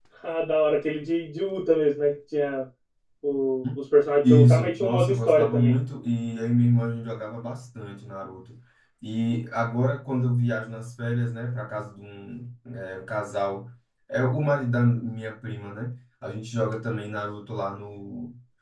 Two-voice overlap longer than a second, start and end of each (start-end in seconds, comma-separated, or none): 4.2-5.7